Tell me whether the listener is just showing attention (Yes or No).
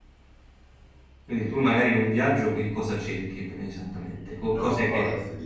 No